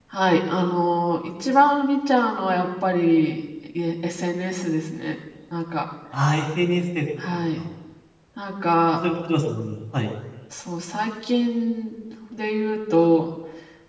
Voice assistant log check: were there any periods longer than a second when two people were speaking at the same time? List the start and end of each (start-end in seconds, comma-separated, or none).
none